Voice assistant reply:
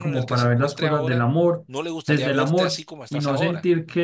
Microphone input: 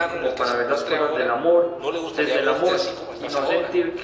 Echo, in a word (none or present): present